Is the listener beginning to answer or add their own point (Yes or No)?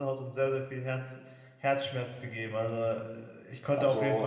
No